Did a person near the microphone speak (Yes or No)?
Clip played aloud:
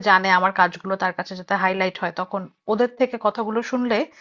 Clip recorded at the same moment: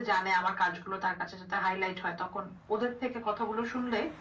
No